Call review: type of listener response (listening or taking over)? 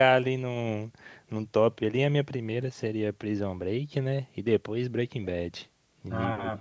taking over